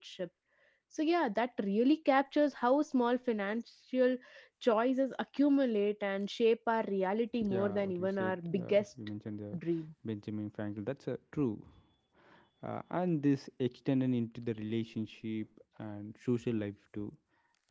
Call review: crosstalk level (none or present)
present